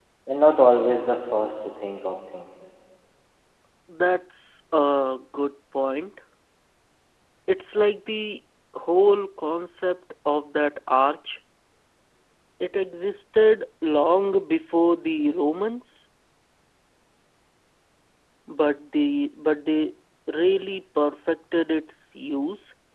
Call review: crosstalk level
none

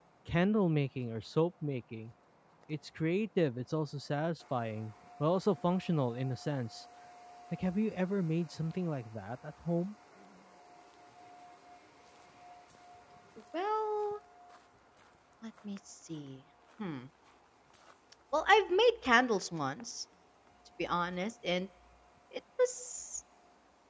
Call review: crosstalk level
none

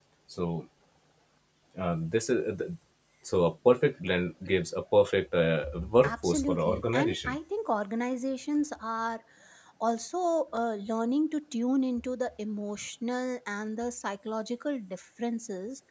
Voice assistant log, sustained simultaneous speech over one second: present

